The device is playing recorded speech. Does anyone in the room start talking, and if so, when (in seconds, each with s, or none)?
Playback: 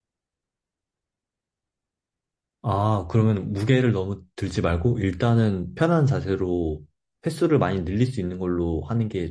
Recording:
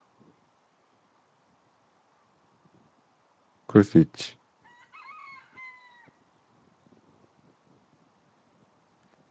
3.7 s